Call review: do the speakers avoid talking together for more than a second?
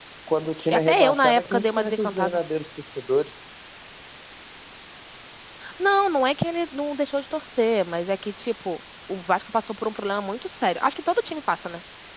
No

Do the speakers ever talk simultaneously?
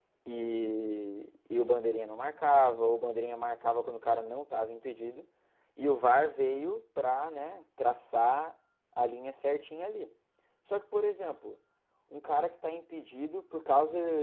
No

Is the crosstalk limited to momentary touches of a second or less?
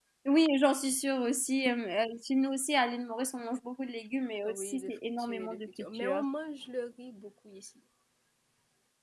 No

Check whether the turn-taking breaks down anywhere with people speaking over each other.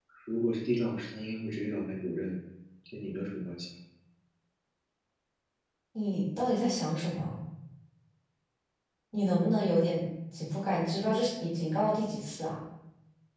No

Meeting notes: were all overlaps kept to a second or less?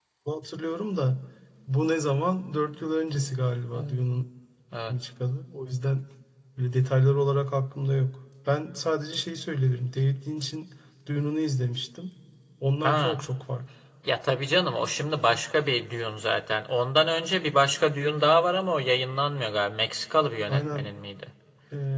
Yes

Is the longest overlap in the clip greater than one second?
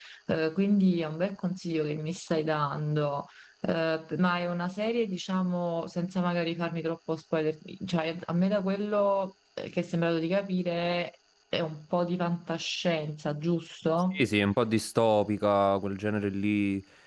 No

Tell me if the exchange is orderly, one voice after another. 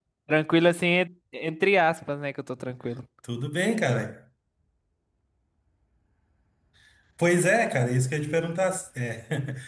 Yes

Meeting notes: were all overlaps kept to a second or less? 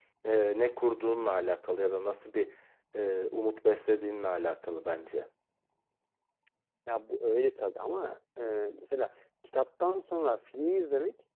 Yes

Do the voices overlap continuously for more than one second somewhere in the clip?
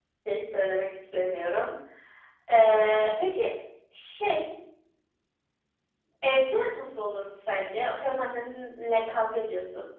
No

